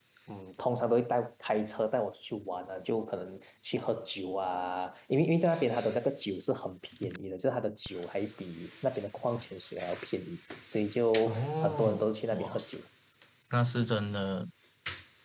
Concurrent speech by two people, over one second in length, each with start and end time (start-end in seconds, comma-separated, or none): 11.3-12.6